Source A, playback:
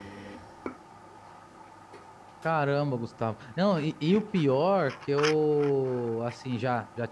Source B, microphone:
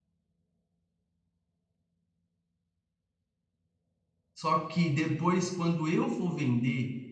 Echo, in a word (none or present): none